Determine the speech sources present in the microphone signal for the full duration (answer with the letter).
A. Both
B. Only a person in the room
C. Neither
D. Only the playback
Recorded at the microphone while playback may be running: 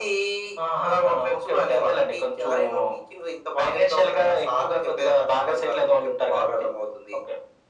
D